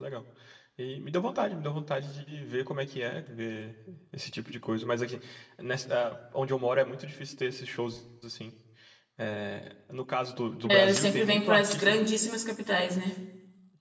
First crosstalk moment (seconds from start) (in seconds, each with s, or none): 10.6 s